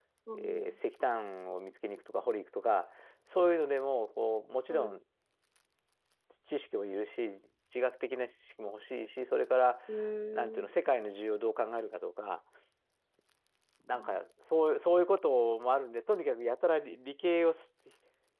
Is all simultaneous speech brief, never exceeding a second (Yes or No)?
Yes